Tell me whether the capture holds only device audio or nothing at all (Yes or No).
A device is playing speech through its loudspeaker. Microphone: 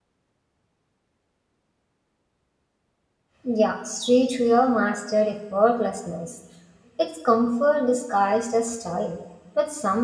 No